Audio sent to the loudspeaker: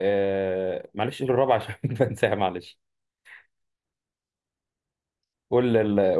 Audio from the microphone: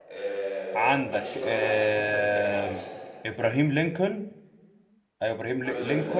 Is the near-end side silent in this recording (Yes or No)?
No